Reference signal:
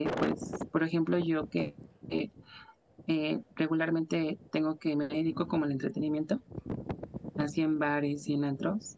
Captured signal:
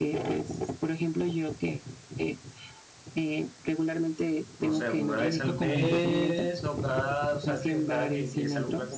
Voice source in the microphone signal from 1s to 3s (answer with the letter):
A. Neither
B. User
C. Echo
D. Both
C